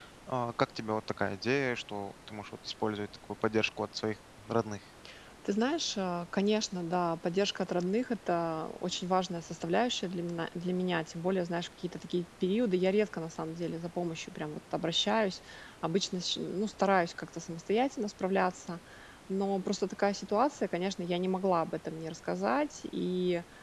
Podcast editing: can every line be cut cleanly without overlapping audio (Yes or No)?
Yes